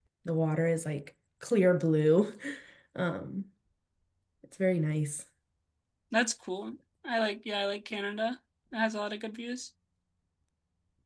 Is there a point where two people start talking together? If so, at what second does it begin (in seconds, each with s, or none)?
none